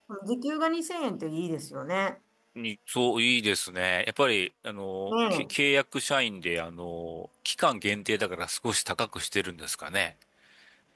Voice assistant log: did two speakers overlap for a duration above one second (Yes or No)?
No